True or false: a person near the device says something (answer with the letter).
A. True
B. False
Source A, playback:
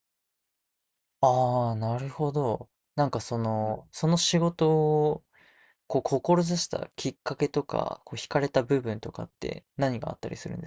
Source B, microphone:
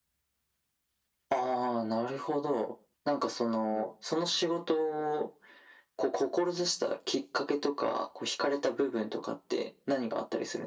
B